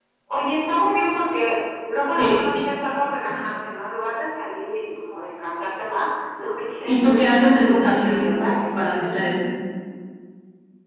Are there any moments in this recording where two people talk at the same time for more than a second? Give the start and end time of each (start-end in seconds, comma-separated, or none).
6.8-9.3